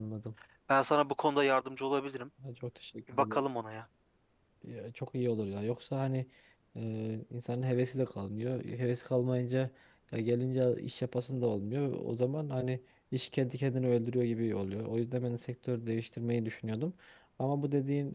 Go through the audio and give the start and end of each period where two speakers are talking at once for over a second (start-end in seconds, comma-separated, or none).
none